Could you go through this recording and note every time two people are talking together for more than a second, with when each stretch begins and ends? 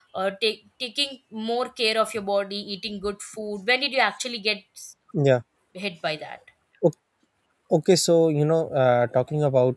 none

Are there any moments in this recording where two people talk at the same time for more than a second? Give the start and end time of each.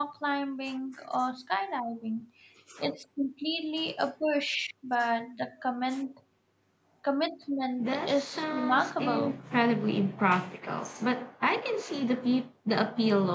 7.8-9.3

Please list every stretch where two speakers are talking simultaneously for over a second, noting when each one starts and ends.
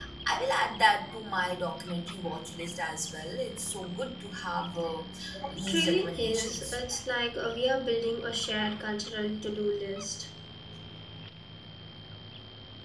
5.5-6.8

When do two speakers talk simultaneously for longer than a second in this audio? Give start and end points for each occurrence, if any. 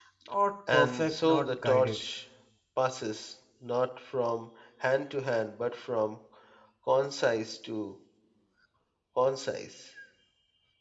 0.7-2.0

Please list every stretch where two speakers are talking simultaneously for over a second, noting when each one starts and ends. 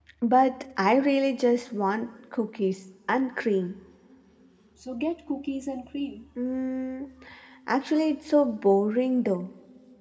none

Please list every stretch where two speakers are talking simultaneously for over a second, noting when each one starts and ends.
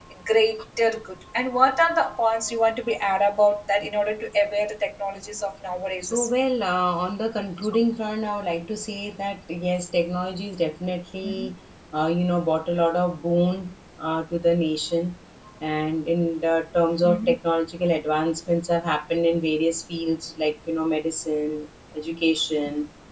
none

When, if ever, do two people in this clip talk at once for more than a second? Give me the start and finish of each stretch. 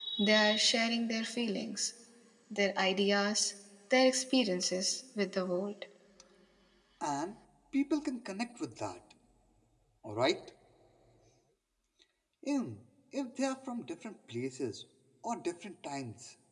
none

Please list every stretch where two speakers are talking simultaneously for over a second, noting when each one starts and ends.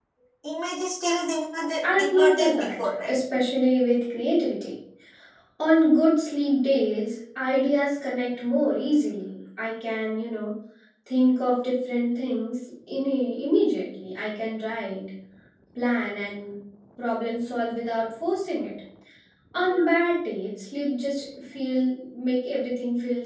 1.8-3.1

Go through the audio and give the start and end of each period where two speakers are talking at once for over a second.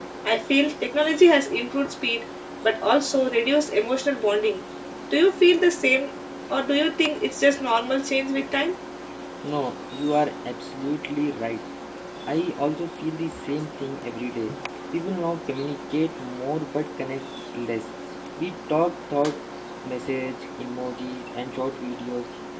none

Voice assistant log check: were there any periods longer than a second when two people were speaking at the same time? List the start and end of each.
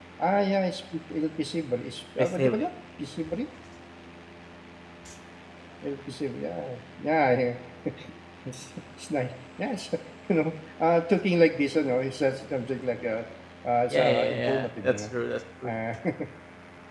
13.9-15.1

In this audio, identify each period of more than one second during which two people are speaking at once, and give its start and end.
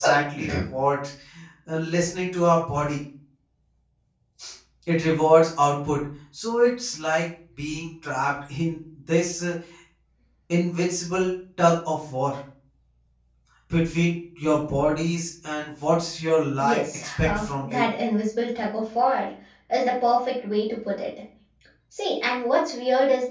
16.6-17.9

